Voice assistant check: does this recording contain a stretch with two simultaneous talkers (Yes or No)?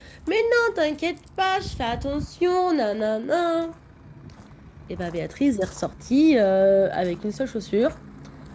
No